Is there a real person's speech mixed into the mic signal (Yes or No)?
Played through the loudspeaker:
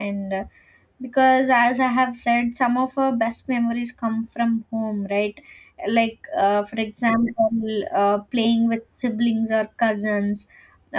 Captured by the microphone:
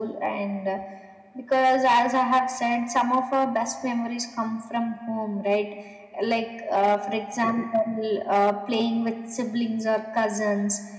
No